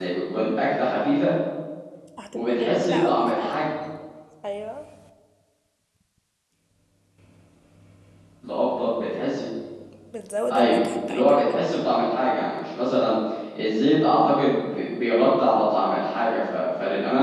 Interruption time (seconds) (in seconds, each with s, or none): 2.4 s